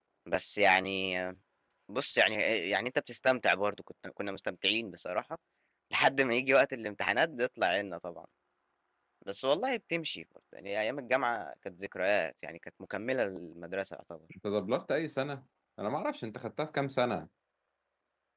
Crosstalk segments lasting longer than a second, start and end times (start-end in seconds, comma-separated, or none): none